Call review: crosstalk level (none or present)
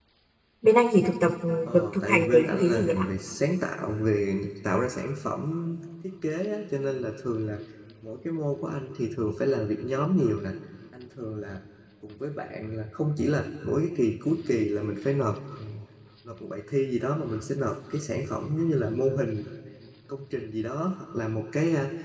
present